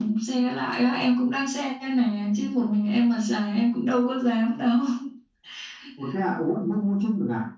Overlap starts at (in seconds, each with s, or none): none